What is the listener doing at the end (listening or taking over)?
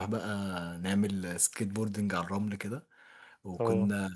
listening